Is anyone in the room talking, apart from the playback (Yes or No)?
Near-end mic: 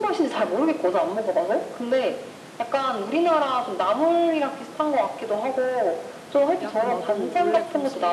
Yes